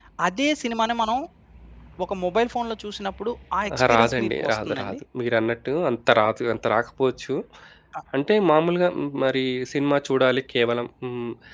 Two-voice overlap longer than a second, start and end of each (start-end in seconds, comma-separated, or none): 3.7-4.9